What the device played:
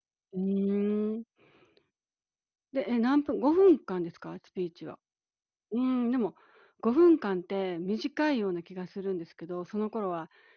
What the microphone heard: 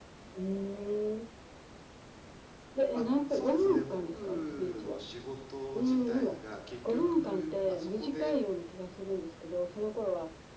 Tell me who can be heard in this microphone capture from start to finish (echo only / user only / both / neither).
both